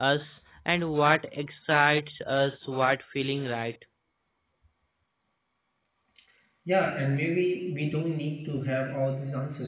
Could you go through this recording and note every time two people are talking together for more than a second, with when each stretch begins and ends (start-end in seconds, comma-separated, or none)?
none